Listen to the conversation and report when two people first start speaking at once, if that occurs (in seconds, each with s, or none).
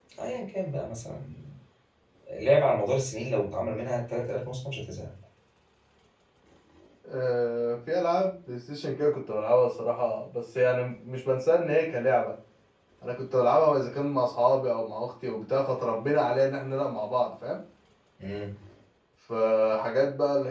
none